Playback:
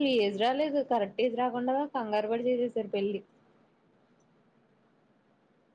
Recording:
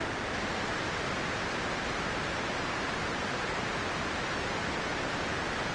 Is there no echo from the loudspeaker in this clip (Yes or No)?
Yes